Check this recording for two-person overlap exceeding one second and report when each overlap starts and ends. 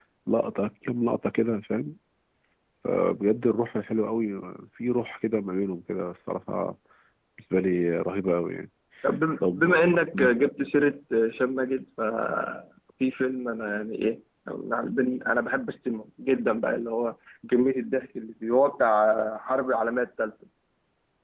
none

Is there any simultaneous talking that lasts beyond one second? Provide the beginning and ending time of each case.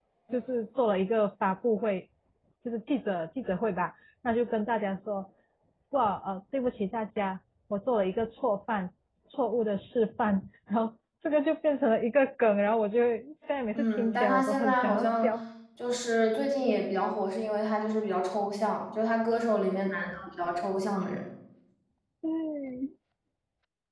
13.7-15.3

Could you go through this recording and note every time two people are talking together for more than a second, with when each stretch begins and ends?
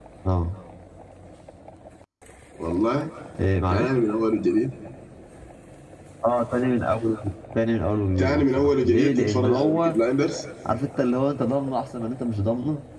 8.2-10.0

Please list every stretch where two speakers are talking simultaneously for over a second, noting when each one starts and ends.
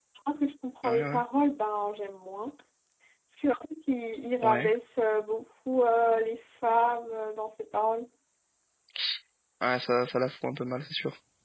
none

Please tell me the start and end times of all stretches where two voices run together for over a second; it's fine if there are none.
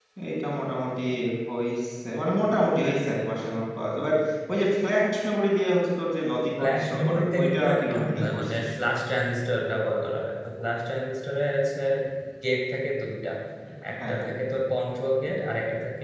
6.6-8.6

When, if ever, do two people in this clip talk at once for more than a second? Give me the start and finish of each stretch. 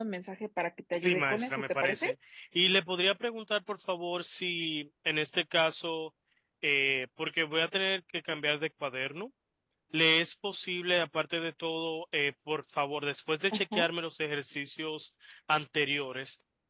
0.9-2.1

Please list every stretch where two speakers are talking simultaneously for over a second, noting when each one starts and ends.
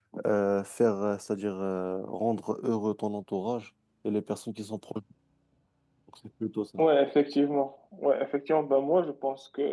none

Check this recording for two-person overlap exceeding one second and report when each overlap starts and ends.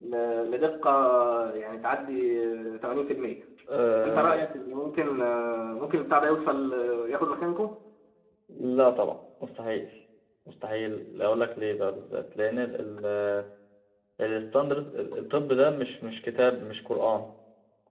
none

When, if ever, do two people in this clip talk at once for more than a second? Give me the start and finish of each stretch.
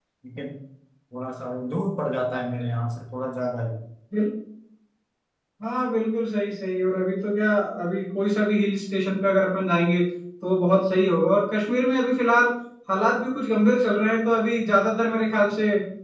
none

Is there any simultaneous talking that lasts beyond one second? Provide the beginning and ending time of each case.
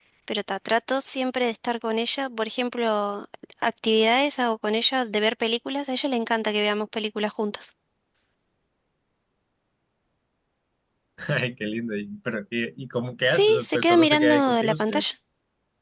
13.3-15.0

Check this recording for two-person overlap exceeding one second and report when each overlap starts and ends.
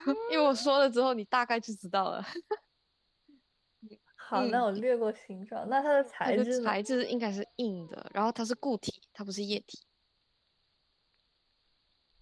none

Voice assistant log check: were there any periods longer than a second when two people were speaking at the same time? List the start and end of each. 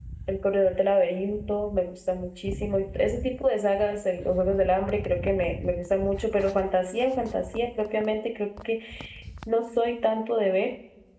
none

